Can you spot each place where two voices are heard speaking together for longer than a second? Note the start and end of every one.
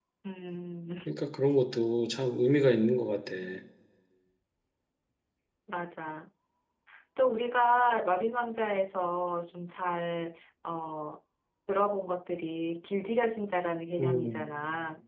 none

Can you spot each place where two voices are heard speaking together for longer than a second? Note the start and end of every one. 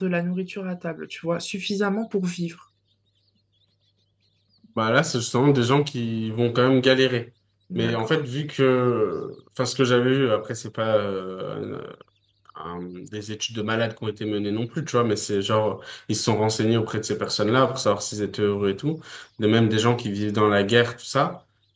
none

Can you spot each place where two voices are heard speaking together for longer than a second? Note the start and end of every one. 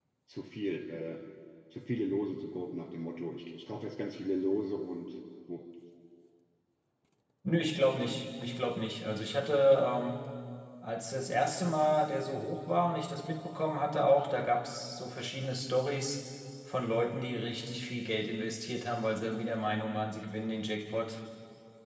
none

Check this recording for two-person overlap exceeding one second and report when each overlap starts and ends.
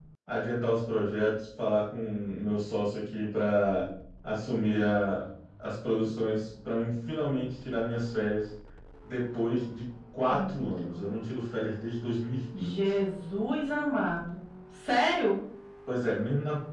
none

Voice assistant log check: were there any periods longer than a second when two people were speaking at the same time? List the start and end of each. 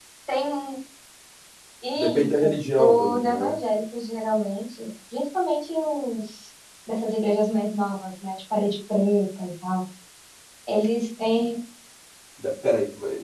2.0-3.5

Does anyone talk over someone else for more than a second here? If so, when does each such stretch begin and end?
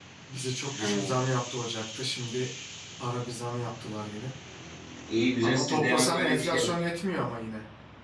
5.5-6.7

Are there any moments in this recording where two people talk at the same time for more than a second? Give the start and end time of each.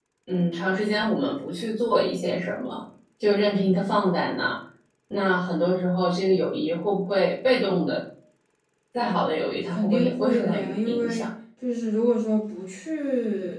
9.7-11.3

